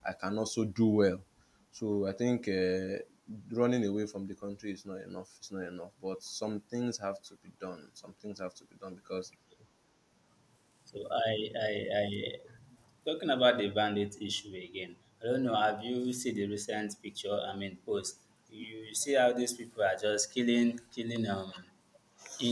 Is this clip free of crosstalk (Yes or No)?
Yes